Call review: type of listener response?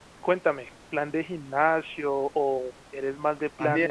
taking over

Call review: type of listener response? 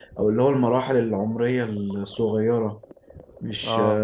taking over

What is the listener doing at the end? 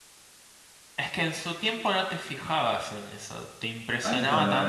taking over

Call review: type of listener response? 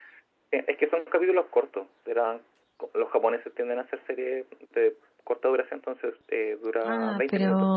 taking over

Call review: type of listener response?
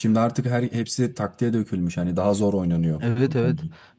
taking over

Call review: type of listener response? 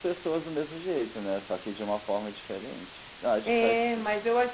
taking over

